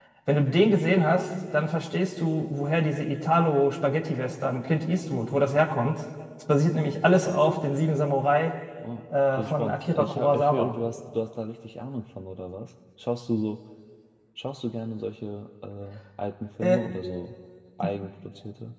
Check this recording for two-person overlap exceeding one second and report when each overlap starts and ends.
9.3-10.7

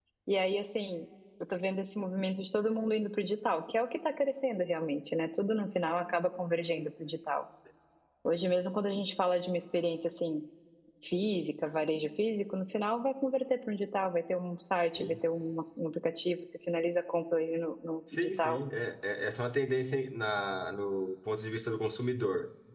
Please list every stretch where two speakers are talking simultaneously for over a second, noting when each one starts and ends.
none

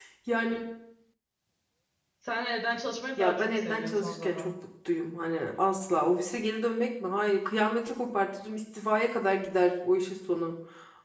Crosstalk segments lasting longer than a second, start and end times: 3.2-4.5

